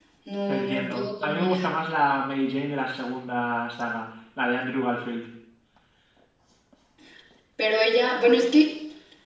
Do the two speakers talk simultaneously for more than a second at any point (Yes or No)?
Yes